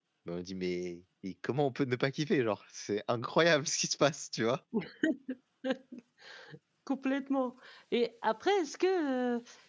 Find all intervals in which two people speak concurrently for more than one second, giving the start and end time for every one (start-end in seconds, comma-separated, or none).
none